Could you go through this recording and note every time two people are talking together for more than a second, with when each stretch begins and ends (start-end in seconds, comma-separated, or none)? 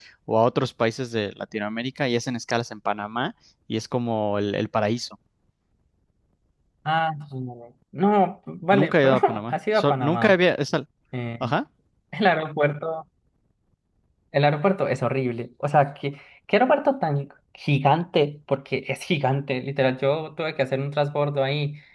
8.7-10.3